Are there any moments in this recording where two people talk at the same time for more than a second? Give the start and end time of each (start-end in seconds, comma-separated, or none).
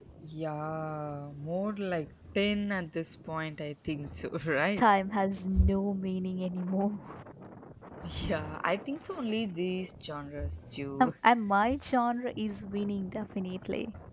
none